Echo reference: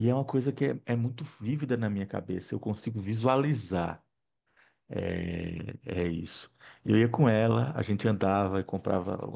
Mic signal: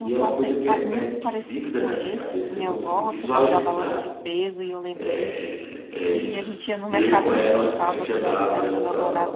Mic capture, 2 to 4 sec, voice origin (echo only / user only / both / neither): both